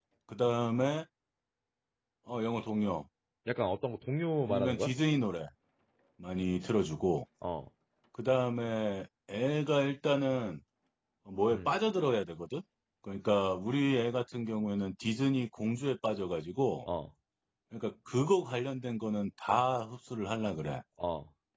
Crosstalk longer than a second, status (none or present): none